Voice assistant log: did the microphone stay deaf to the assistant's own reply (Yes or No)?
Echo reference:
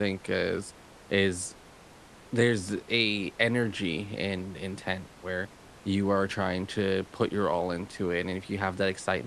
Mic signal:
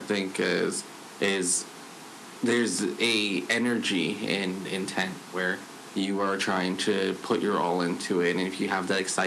No